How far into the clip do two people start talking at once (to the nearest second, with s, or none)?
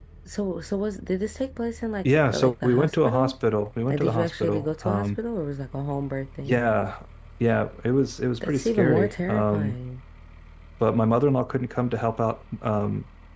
2 s